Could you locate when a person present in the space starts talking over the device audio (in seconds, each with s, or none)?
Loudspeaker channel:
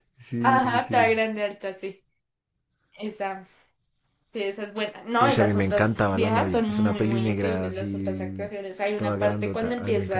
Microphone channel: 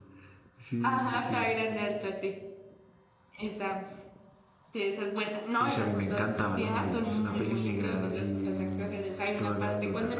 none